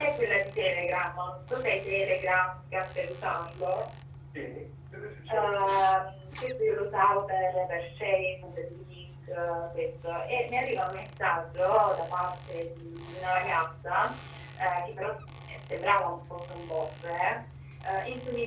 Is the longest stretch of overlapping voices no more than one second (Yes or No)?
Yes